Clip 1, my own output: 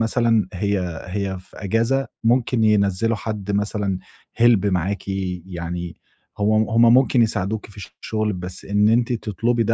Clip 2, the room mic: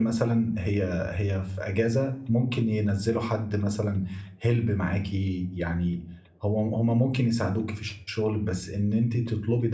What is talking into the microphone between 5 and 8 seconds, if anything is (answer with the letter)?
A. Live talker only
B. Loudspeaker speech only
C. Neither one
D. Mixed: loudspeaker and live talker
B